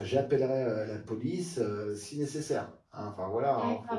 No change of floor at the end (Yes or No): No